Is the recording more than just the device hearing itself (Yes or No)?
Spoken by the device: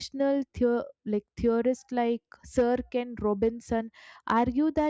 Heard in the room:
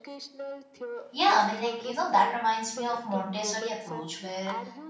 Yes